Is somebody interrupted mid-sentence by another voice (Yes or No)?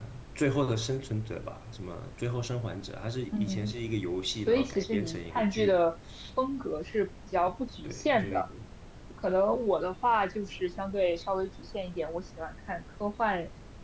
Yes